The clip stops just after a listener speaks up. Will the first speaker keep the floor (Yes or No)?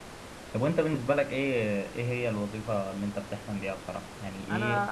Yes